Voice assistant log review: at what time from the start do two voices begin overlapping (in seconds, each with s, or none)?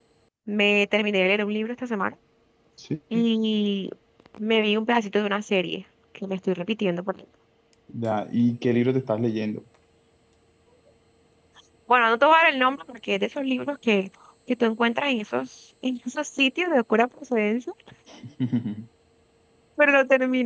none